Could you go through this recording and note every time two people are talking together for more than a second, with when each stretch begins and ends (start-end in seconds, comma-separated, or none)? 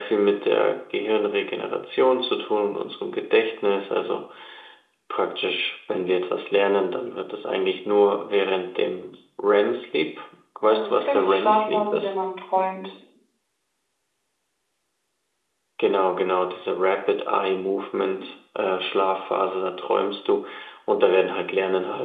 10.6-12.2